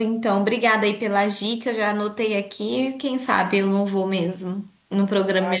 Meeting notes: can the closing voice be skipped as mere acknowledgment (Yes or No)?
No